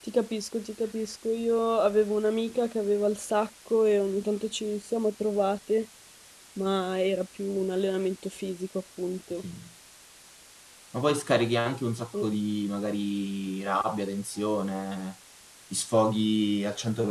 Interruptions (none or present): none